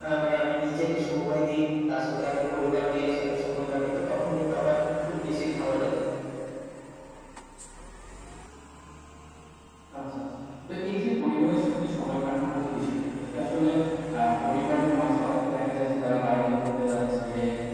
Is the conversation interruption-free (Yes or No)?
Yes